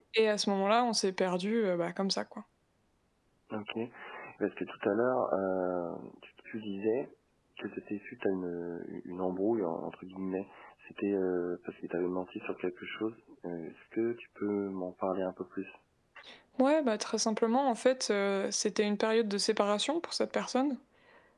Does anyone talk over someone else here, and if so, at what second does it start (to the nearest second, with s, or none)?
none